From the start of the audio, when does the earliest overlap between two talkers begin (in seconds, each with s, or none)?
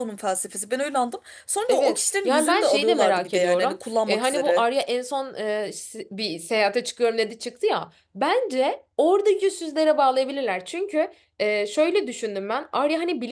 1.7 s